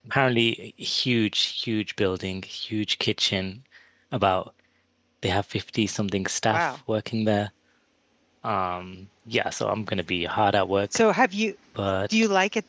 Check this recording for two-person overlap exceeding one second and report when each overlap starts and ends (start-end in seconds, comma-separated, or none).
none